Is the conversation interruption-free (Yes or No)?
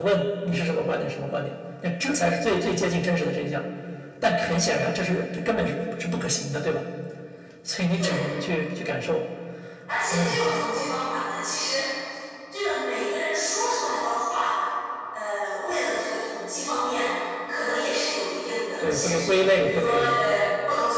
No